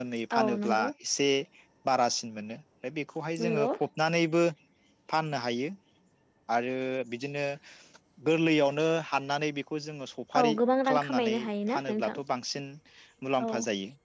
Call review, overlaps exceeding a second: present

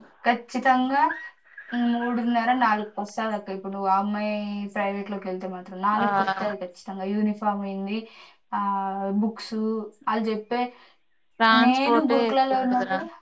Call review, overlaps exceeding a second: present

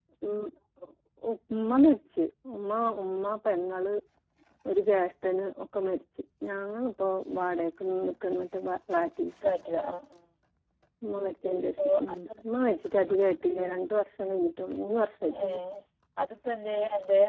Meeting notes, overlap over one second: none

